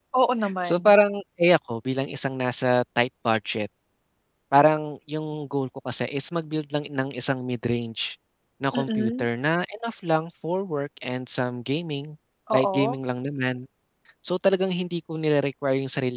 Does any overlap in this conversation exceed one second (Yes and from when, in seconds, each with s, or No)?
No